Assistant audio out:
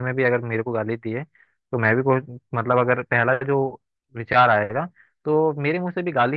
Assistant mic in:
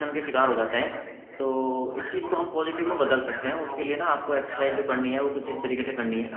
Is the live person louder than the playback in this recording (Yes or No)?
Yes